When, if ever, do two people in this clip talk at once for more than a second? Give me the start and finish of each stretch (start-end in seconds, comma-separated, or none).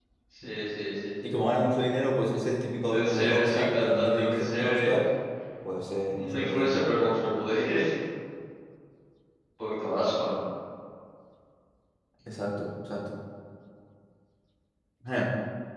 2.8-5.0